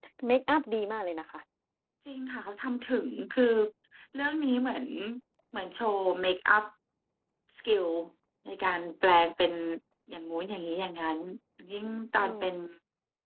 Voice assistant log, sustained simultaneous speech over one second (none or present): none